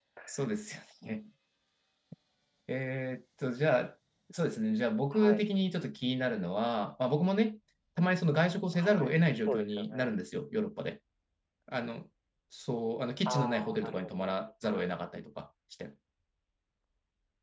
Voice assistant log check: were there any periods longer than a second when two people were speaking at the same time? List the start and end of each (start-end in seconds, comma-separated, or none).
8.7-10.2, 13.2-14.9